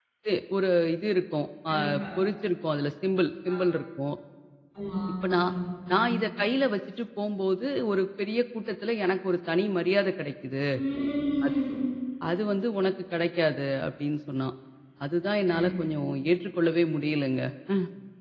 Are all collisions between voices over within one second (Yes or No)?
Yes